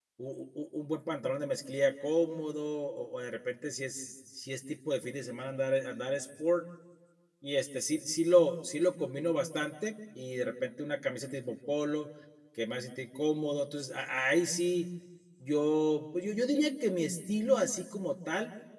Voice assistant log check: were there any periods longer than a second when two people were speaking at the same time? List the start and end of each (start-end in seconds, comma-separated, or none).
none